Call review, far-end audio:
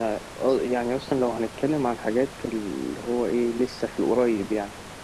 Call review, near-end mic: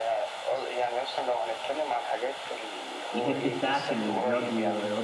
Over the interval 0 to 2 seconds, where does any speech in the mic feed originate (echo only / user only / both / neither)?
echo only